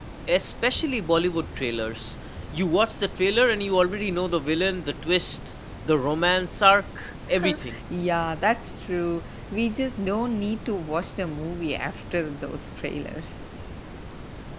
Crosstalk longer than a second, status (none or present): none